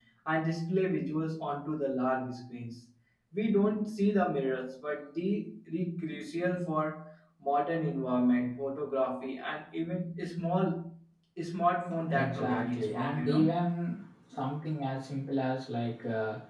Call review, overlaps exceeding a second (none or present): present